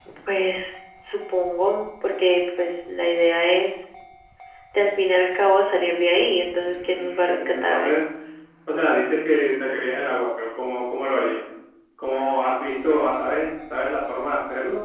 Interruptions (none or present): present